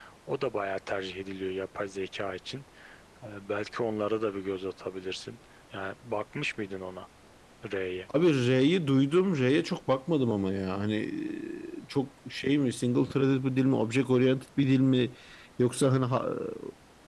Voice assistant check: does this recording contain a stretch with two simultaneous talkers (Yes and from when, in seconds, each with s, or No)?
No